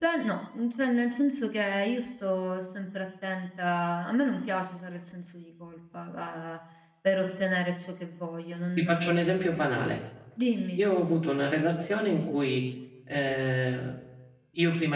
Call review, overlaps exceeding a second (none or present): none